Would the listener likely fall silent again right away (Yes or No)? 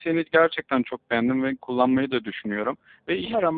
Yes